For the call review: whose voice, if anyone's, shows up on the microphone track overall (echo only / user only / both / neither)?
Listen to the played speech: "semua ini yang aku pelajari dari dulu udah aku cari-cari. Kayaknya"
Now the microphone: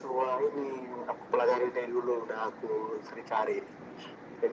echo only